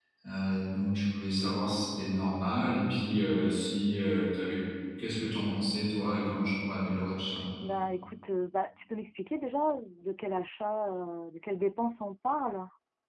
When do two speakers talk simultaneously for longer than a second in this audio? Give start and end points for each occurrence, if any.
none

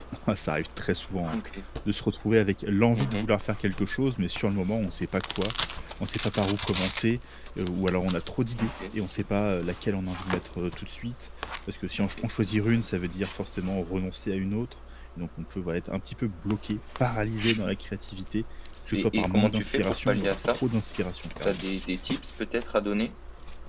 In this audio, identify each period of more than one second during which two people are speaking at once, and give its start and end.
18.9-20.6

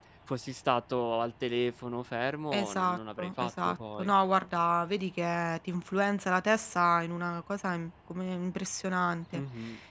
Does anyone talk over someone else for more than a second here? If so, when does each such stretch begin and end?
2.5-4.1

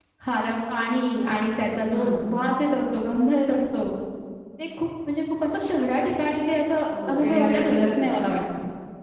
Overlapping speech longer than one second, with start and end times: 7.1-8.4

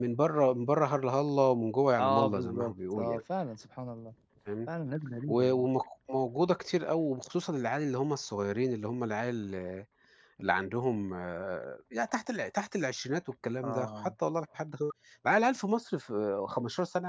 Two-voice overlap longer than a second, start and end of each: 2.0-3.2

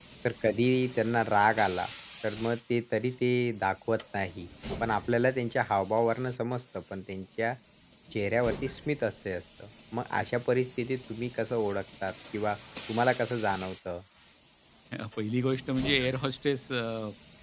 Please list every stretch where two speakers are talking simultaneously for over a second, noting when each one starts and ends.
none

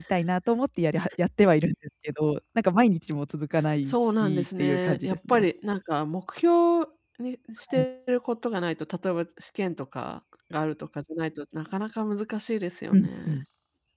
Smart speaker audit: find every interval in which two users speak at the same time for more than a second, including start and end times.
3.9-5.5

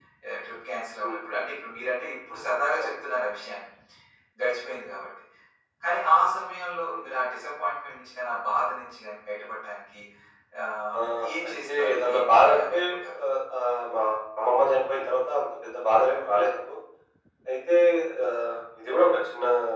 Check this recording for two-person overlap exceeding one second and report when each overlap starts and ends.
11.5-12.8

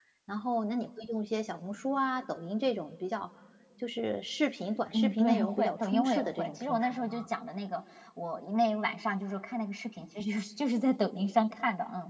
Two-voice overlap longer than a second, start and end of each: 4.9-7.3

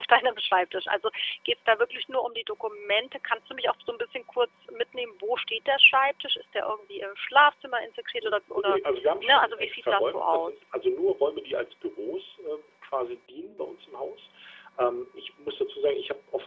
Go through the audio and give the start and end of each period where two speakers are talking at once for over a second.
9.2-10.6

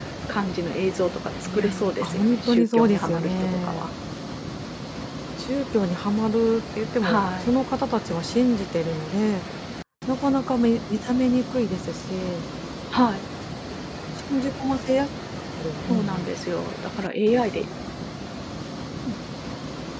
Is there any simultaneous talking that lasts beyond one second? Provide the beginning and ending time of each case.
1.5-3.9

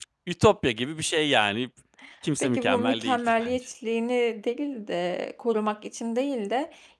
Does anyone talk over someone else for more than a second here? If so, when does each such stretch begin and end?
2.4-3.6

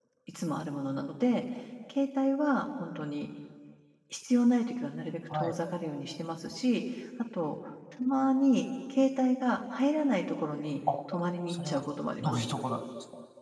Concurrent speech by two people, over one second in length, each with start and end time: none

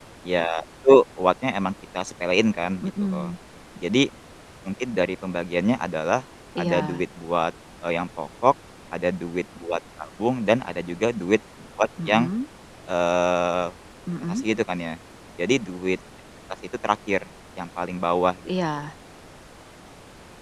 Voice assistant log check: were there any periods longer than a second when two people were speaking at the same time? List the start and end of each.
none

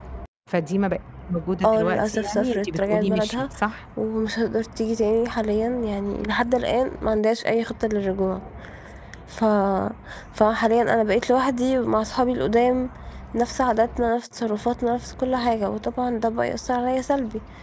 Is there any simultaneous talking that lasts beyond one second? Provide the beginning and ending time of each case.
1.6-3.4

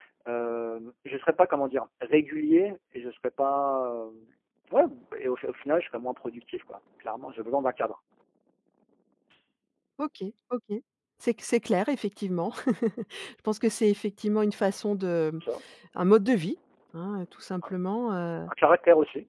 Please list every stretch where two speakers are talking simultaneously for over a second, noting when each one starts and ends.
none

